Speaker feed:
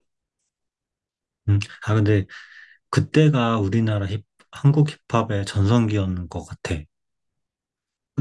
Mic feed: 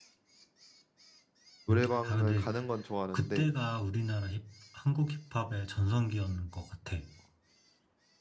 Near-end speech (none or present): present